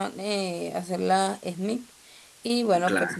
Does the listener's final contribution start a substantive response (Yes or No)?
No